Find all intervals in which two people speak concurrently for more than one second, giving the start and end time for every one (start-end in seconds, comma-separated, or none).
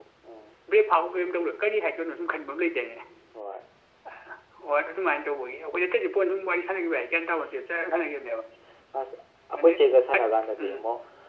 none